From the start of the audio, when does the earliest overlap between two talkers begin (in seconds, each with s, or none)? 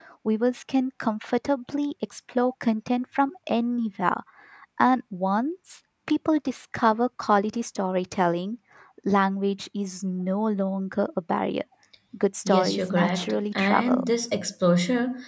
12.4 s